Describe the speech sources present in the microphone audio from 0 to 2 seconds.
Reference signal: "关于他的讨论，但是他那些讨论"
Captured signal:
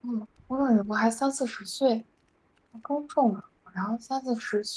user only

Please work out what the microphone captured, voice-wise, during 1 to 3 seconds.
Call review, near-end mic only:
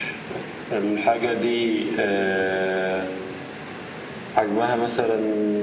echo only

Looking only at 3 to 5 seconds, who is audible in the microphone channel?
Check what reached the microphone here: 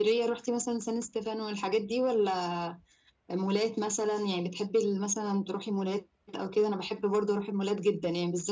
echo only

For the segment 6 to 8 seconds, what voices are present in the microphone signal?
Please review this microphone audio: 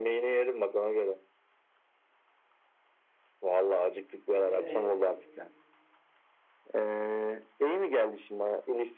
echo only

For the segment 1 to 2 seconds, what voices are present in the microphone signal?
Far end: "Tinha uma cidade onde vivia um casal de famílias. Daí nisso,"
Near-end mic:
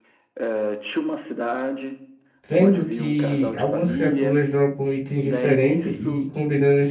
echo only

